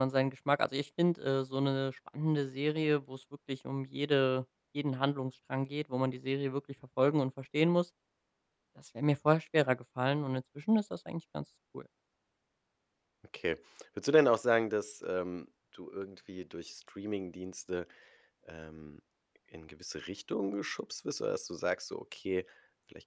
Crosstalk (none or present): none